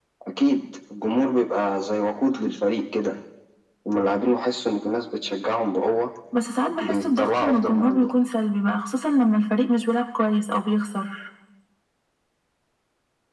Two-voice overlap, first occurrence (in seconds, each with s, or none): 6.8 s